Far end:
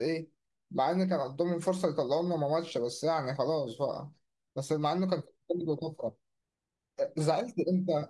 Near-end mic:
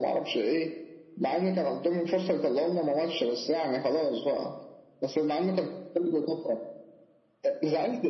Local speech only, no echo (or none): none